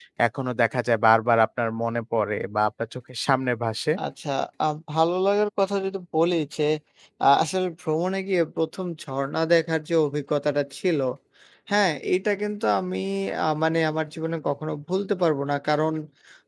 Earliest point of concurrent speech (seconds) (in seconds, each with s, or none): none